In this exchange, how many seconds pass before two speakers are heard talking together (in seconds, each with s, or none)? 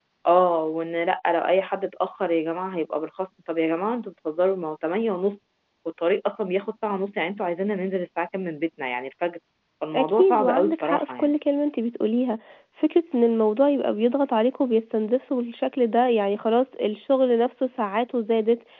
9.9 s